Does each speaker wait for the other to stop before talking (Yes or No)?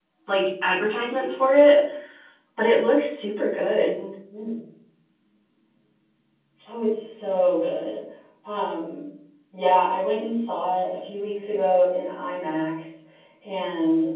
Yes